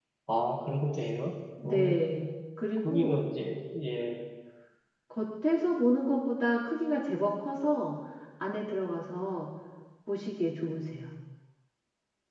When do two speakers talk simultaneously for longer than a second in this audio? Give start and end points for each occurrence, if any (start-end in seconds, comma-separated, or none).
none